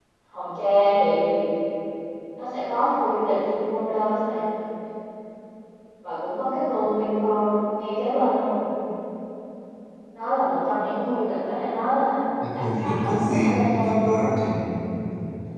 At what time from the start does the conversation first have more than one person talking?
12.4 s

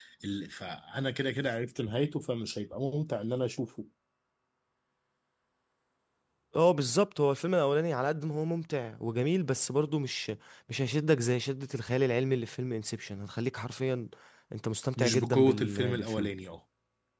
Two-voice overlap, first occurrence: 15.0 s

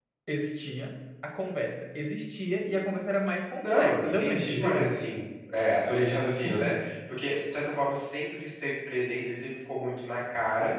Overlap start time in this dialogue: 3.6 s

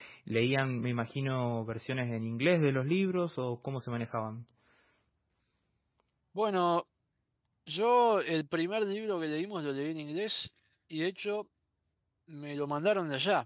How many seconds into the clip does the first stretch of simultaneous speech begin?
none

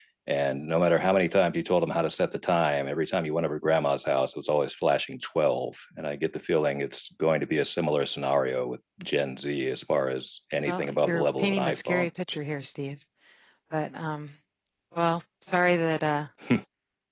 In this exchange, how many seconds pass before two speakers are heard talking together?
10.6 s

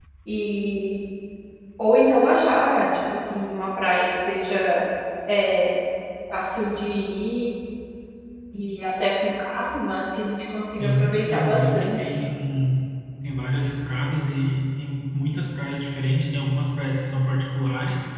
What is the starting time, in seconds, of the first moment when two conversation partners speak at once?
10.7 s

